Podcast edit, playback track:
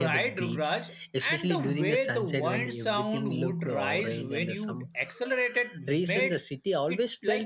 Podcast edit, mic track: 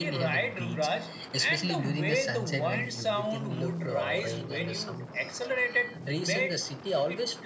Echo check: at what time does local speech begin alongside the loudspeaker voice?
none

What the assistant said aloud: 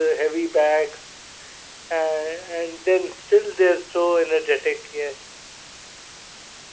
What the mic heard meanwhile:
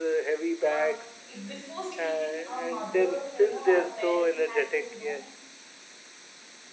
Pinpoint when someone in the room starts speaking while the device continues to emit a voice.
1 s

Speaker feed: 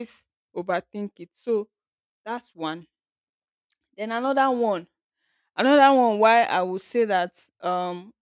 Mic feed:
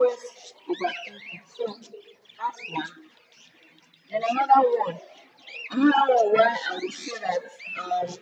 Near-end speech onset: none

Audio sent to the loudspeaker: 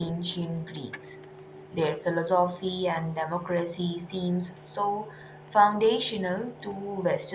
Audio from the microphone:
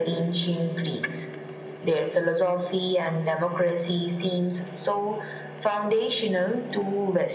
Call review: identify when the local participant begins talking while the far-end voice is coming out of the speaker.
none

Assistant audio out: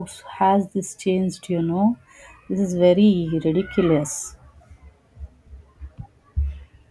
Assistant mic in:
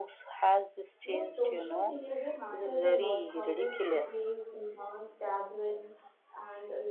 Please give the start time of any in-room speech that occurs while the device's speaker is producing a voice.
1 s

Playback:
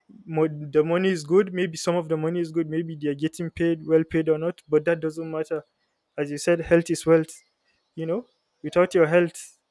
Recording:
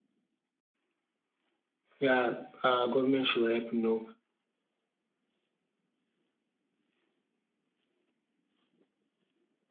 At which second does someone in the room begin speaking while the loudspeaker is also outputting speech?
2 s

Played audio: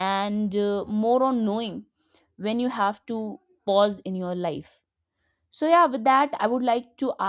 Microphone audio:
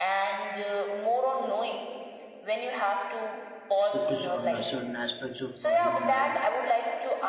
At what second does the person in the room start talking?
4 s

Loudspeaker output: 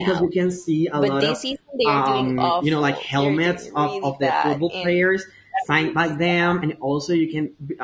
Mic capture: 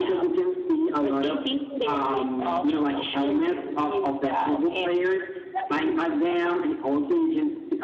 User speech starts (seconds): none

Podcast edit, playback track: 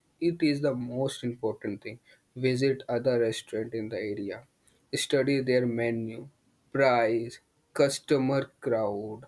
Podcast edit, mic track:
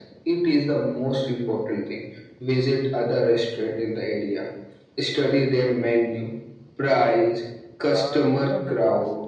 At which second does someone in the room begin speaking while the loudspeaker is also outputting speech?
8 s

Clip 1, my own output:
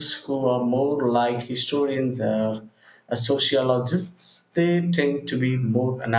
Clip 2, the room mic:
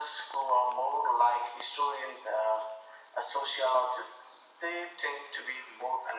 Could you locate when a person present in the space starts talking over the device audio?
none

